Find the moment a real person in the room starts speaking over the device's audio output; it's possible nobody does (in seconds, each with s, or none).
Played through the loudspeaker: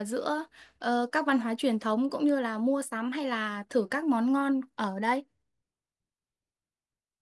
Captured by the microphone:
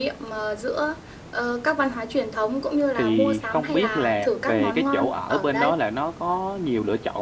2.9 s